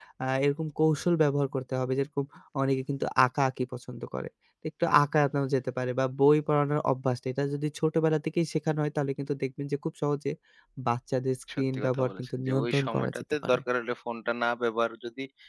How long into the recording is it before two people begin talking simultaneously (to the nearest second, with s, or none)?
12 s